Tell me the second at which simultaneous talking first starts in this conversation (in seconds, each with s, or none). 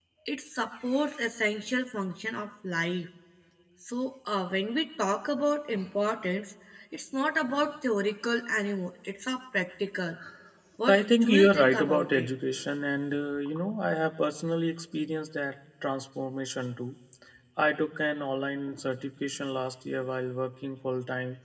10.9 s